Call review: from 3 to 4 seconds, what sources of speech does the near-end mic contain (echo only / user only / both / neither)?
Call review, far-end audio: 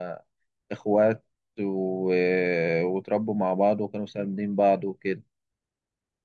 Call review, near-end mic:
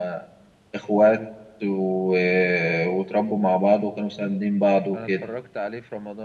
echo only